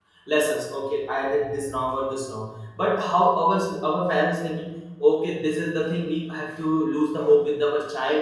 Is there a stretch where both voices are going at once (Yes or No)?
No